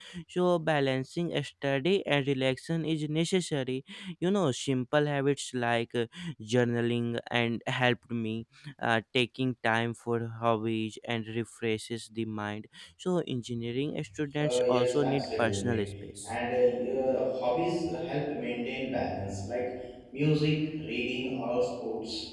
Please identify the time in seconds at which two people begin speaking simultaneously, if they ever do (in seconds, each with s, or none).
14.4 s